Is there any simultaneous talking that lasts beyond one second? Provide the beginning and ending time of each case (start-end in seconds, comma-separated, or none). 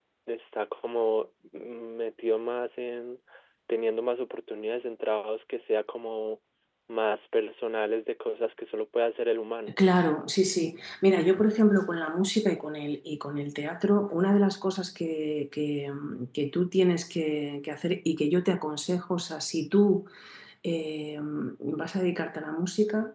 none